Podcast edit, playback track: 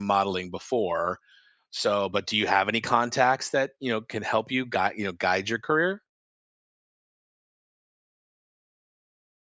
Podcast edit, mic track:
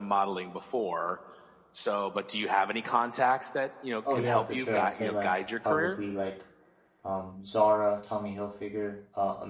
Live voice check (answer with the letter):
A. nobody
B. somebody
B